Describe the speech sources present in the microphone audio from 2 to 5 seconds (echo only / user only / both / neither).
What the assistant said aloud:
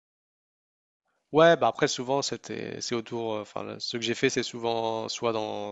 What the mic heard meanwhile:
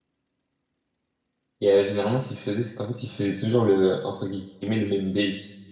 user only